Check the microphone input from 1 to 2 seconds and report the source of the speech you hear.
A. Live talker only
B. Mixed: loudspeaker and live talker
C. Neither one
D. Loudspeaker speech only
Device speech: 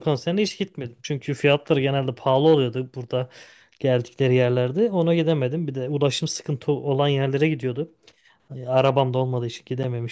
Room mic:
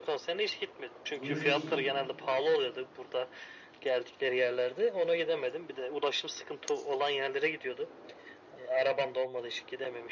B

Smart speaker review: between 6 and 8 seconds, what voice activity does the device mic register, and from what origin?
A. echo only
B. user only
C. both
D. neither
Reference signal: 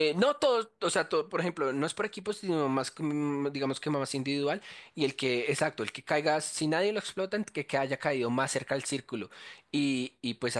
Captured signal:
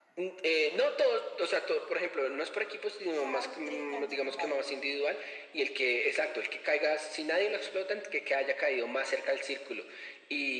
A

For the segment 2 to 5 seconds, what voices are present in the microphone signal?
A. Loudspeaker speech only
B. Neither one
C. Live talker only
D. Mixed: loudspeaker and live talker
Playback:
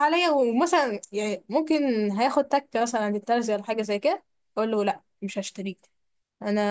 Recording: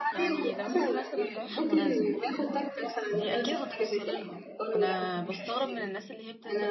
D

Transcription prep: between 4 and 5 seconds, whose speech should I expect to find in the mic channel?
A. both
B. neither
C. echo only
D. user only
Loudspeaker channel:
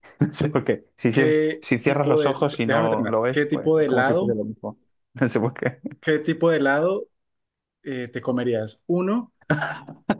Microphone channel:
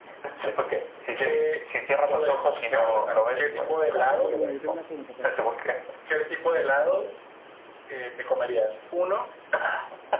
A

